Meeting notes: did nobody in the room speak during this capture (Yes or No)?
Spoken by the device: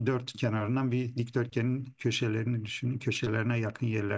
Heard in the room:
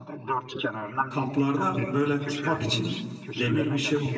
No